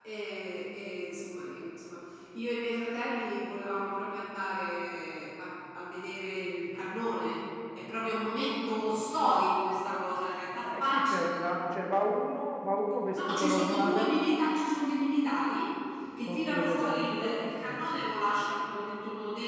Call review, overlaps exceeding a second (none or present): present